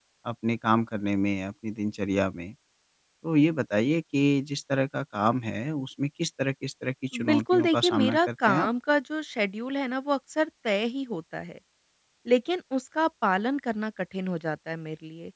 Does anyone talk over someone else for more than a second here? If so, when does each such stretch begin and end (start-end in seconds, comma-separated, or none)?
7.2-8.7